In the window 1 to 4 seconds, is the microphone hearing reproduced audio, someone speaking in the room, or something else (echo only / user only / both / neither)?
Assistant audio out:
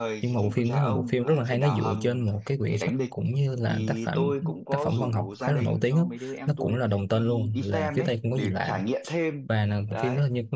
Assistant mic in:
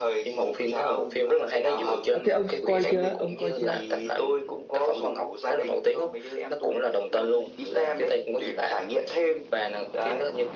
both